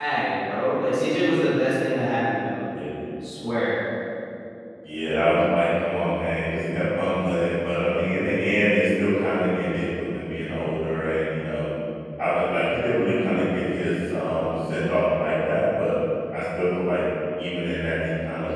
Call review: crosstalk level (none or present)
none